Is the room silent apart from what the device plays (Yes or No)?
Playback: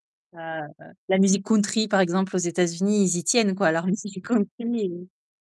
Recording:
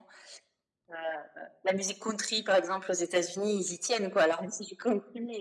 Yes